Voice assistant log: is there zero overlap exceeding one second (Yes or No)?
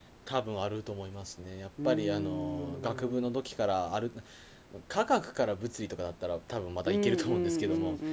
No